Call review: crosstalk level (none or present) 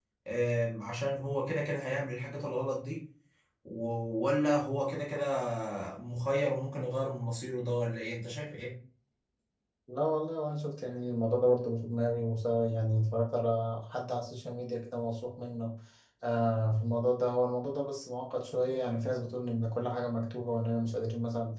none